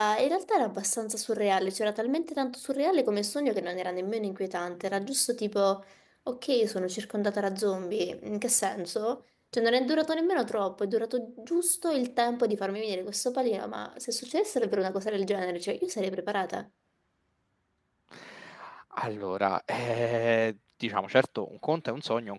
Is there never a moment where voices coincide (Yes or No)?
Yes